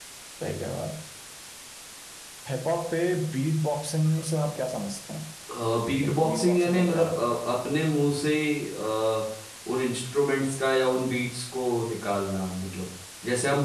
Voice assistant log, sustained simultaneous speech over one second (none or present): present